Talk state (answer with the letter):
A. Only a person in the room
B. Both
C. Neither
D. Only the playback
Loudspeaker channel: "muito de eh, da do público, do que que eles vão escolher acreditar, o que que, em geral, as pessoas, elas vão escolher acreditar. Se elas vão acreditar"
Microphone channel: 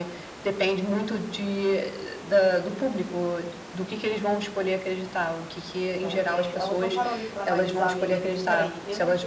B